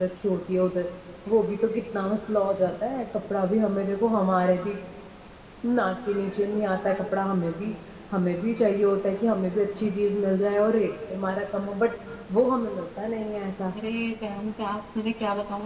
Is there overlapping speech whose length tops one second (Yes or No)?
No